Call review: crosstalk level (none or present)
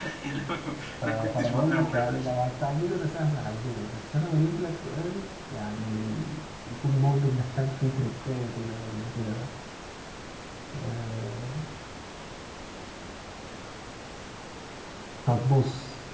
present